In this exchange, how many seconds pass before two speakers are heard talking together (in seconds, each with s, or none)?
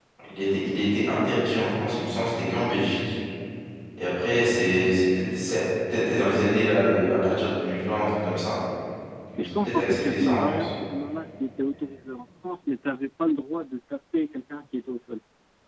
9.4 s